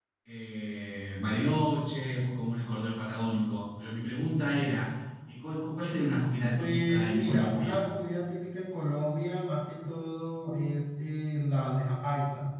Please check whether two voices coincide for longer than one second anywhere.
Yes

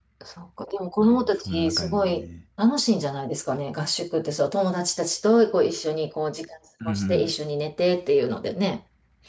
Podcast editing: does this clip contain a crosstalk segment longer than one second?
Yes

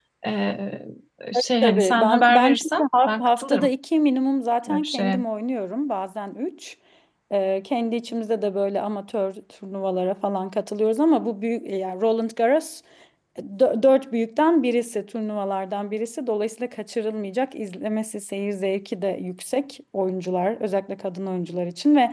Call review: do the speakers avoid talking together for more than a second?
No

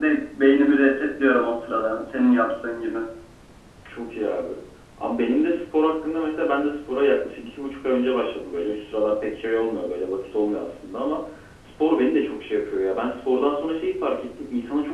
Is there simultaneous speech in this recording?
No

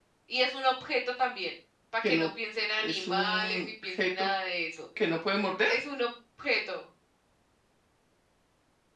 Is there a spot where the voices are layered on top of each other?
Yes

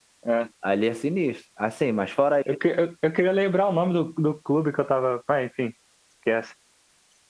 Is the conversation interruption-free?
Yes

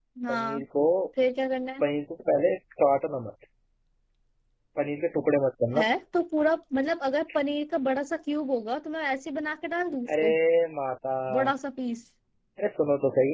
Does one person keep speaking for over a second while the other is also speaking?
No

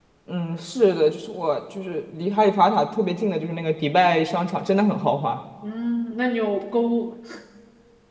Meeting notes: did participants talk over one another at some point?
No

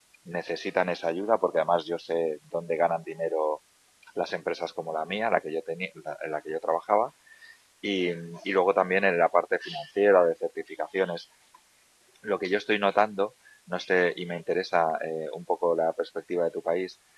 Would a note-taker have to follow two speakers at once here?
No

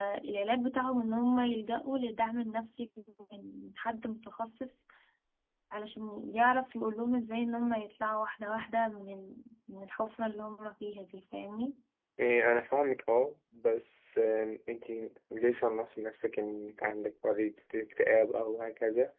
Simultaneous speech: No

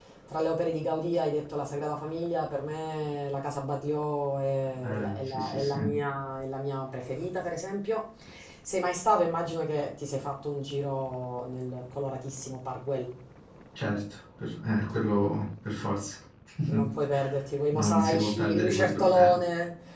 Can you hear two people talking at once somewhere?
Yes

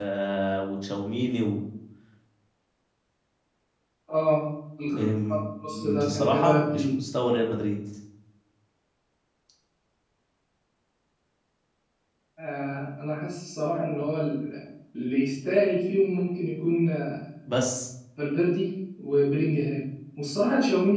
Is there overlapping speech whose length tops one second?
Yes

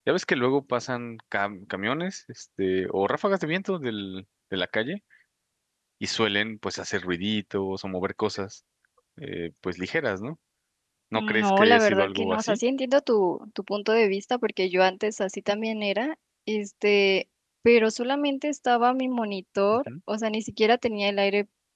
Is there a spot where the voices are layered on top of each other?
Yes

